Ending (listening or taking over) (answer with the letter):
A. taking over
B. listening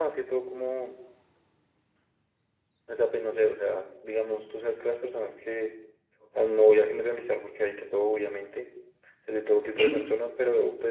B